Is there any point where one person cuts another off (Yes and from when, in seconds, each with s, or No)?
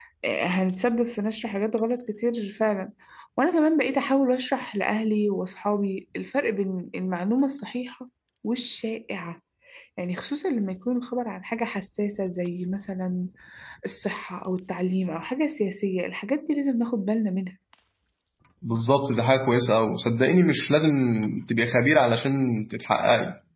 No